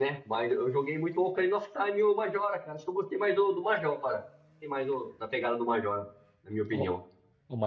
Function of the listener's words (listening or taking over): taking over